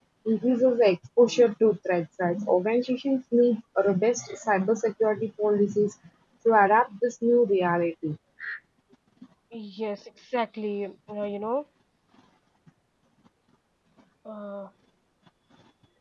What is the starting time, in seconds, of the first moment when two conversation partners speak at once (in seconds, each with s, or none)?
none